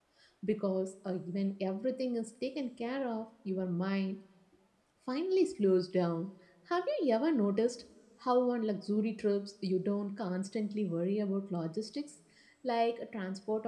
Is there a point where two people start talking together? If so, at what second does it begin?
none

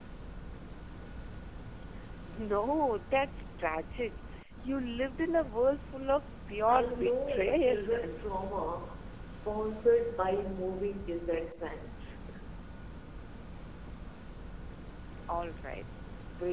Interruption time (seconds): 6.7 s

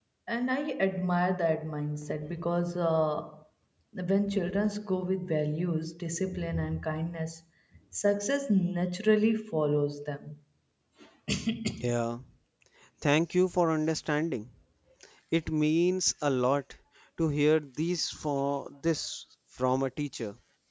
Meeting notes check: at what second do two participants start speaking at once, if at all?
none

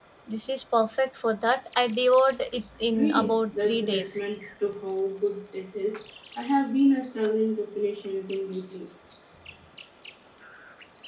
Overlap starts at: 2.9 s

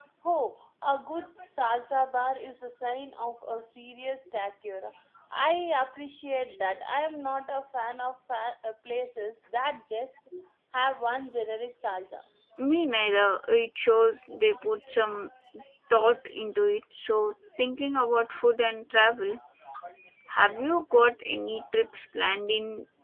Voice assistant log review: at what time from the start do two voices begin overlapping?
none

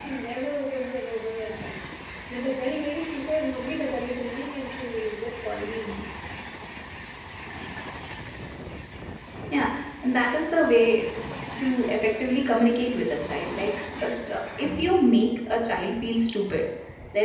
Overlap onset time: none

